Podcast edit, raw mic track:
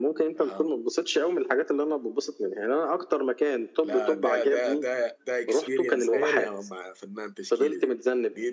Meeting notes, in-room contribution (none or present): present